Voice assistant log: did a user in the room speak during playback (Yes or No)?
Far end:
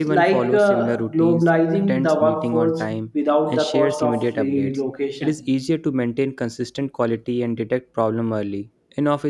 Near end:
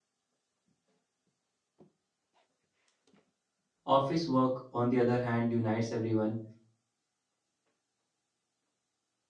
Yes